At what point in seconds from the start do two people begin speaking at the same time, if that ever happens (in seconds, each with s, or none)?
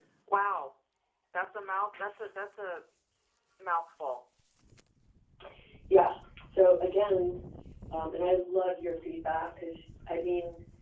none